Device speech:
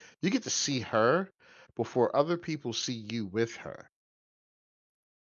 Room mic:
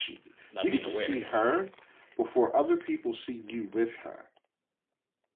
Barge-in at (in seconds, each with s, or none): 0.5 s